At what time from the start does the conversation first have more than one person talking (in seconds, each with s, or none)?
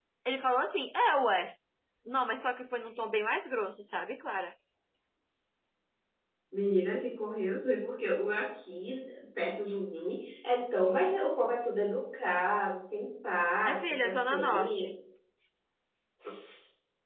13.7 s